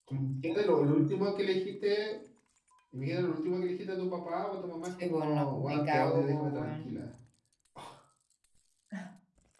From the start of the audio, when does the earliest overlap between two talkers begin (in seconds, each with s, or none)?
5.0 s